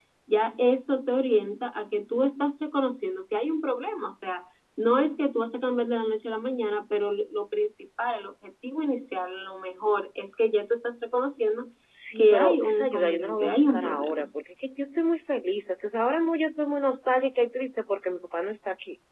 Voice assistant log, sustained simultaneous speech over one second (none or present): present